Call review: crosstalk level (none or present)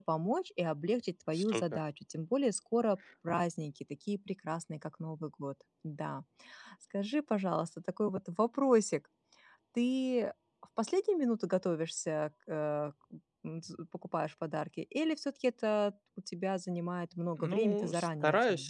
present